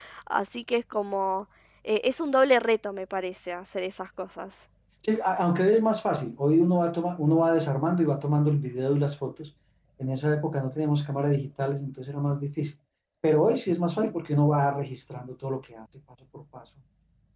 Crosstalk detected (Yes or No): No